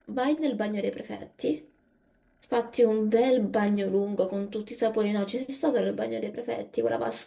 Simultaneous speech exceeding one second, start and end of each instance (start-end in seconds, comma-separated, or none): none